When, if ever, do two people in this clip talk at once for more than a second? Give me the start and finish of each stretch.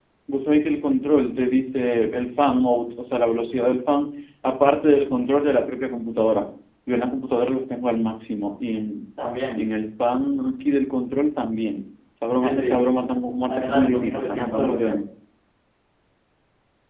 13.5-14.8

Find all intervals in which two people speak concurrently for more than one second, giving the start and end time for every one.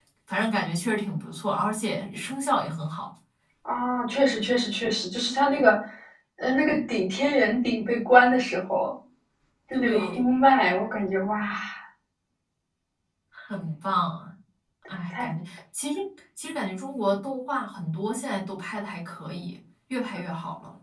none

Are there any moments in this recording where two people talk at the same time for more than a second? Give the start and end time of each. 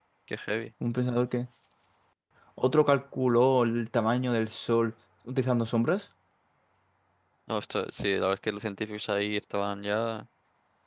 none

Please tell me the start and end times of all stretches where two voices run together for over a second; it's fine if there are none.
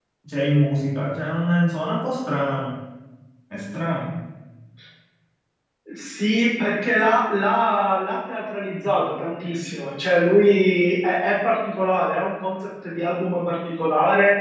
none

